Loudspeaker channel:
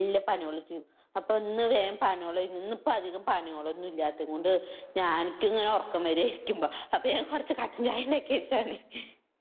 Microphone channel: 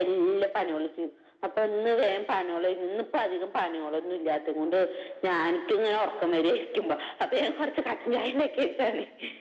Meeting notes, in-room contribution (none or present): none